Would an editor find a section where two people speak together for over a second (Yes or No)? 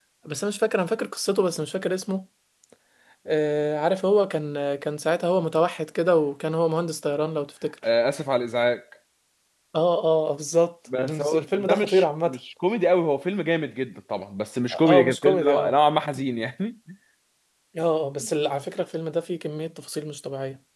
Yes